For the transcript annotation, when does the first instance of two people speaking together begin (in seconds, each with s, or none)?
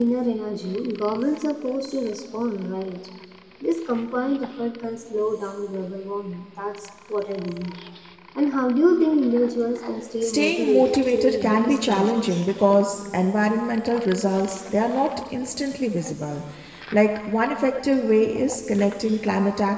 10.2 s